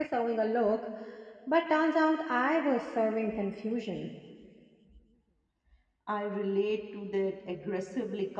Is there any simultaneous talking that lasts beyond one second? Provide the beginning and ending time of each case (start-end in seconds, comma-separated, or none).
none